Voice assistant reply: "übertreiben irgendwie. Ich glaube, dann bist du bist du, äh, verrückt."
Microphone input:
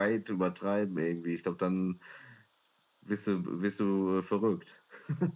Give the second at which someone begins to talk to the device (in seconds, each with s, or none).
none